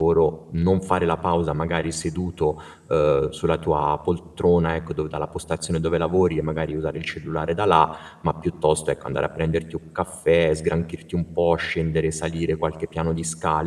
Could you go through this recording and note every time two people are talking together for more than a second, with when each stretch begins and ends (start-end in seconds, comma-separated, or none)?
none